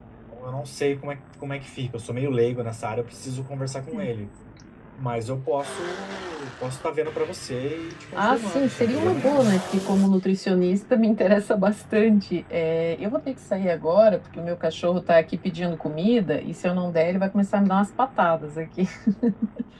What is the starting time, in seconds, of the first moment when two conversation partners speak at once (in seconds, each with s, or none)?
8.2 s